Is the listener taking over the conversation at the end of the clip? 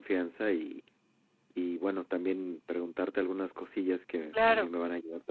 No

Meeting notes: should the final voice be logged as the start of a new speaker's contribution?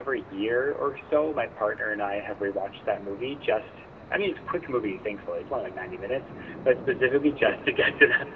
No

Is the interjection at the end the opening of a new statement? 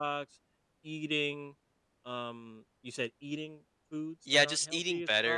Yes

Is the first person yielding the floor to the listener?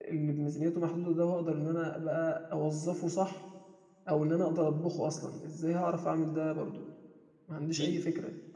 Yes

